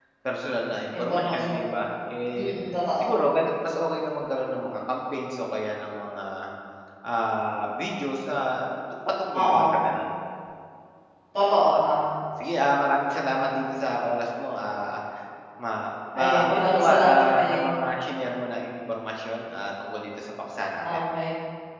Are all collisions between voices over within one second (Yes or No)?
No